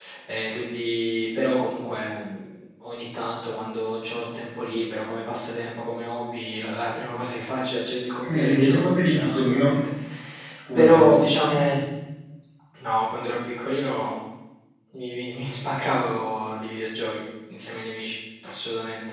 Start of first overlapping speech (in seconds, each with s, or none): 8.3 s